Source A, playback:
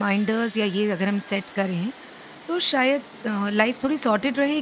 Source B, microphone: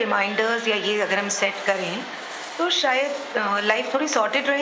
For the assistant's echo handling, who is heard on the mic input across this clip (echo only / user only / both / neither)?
echo only